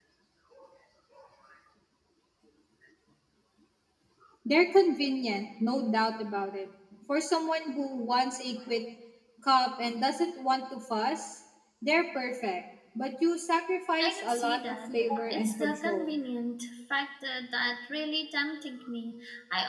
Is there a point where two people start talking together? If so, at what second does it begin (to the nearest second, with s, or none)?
14 s